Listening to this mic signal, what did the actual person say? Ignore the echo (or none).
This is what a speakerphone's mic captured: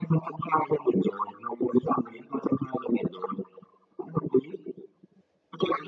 none